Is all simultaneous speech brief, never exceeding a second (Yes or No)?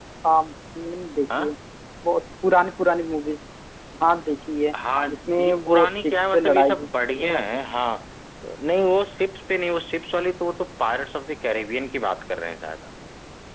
No